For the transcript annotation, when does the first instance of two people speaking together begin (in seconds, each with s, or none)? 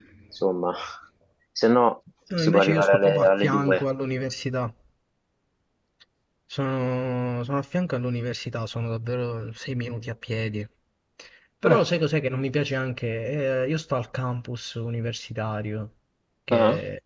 2.4 s